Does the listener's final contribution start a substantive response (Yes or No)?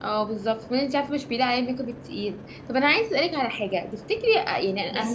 No